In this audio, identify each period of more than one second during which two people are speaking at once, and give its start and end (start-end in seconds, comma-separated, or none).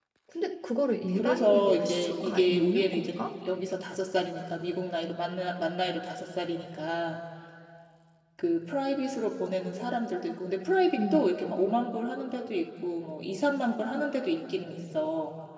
1.1-3.2